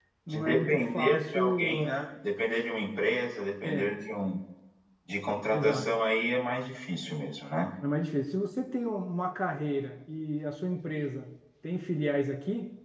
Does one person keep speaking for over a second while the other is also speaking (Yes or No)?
Yes